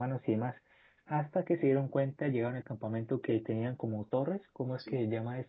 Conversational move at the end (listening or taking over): listening